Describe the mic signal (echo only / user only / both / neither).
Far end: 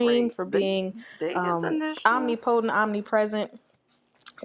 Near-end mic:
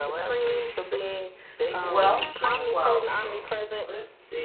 both